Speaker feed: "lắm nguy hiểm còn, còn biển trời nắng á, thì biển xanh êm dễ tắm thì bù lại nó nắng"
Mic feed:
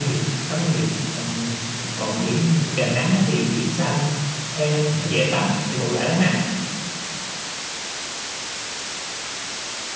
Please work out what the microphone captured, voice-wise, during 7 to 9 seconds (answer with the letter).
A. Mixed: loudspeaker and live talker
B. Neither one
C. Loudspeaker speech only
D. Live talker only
B